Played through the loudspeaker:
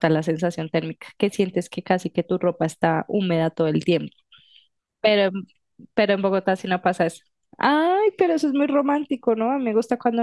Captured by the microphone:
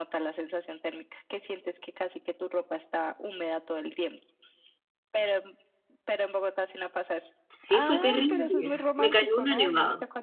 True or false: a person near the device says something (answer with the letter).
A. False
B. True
B